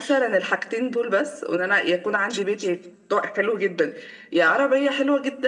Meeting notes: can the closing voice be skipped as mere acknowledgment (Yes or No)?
Yes